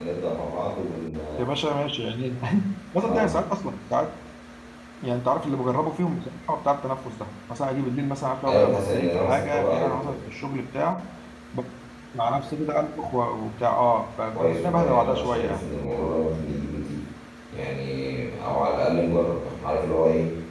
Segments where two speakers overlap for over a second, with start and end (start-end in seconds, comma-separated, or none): 8.5-10.2, 14.3-15.7